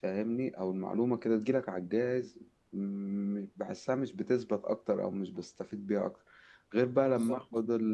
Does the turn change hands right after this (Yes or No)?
No